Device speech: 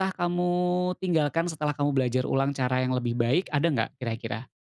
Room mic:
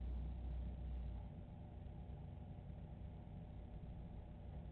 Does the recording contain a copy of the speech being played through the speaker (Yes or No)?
No